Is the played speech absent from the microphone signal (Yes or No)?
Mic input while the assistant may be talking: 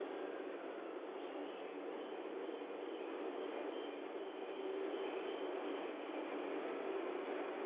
Yes